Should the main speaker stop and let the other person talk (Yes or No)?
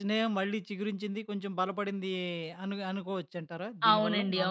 Yes